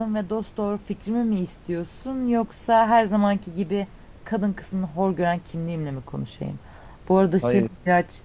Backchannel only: Yes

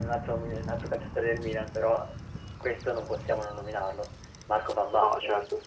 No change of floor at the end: No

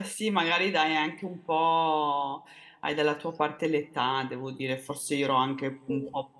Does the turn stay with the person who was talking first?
Yes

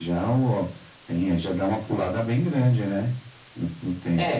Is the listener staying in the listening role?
No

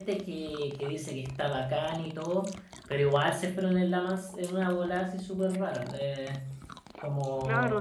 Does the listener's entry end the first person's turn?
Yes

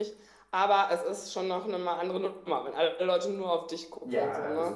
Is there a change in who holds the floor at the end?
Yes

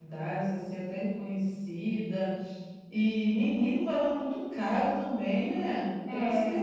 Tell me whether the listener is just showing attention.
No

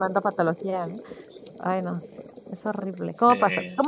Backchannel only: Yes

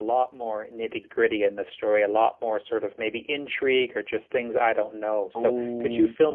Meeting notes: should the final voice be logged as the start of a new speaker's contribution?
Yes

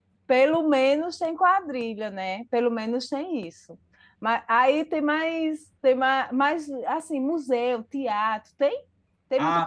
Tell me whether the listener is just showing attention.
No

